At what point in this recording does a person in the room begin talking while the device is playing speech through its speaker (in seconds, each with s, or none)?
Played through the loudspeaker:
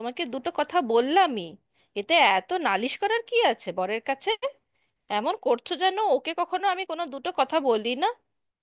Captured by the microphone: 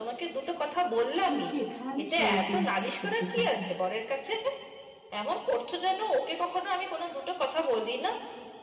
1.2 s